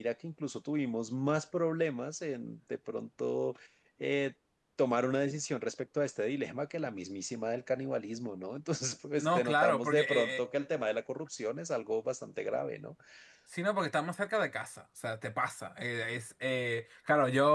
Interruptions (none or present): present